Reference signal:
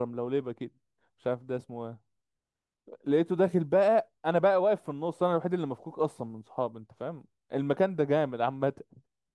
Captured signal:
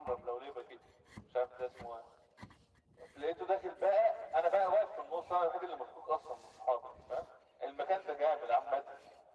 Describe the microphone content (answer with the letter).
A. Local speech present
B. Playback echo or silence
B